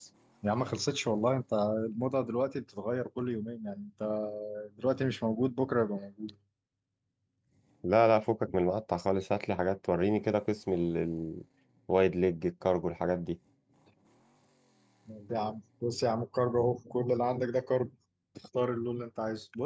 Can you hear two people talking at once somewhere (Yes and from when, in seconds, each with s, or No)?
No